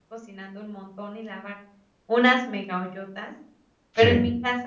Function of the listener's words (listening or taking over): listening